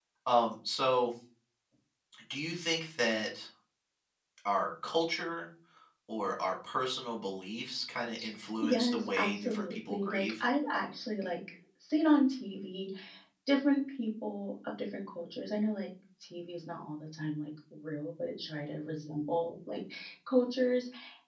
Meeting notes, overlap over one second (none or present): present